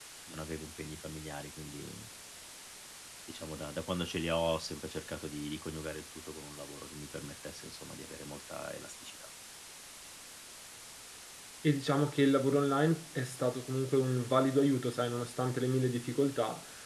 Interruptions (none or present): none